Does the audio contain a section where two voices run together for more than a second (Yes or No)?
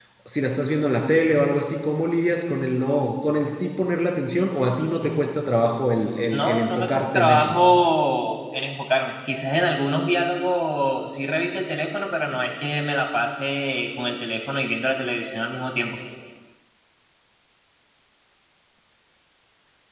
Yes